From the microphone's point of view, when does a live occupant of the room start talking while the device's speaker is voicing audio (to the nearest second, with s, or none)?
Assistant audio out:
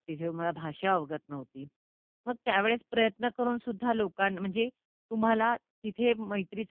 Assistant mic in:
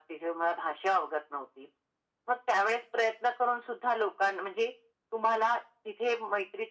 none